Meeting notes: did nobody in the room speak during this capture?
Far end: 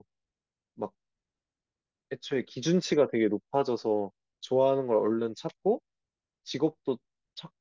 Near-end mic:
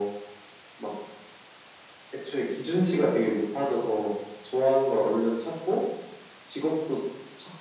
Yes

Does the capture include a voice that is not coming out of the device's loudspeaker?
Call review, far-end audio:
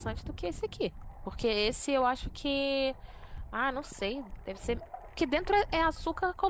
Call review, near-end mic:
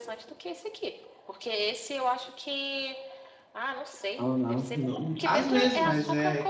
Yes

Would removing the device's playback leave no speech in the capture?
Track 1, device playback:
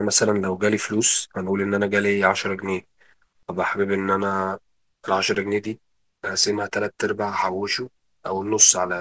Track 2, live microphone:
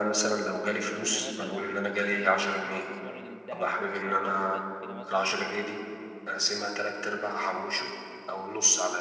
No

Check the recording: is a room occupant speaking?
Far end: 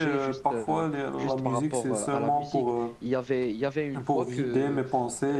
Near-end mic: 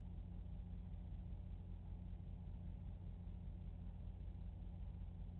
No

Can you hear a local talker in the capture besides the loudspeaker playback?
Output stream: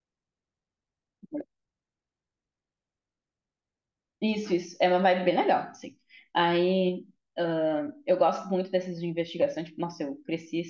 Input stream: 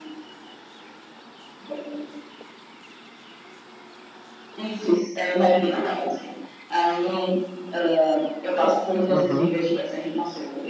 Yes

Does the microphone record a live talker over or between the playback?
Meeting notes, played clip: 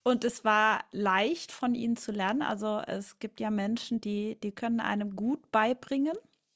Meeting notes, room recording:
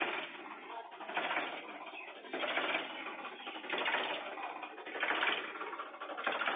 No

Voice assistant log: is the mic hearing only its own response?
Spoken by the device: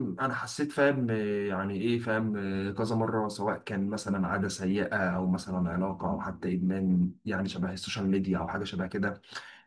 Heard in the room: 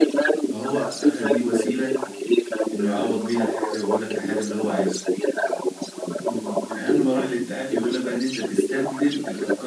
No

